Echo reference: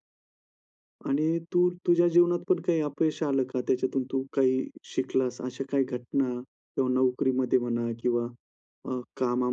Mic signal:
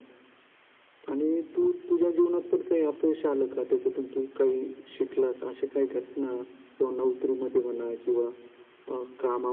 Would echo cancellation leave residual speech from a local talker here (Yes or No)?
No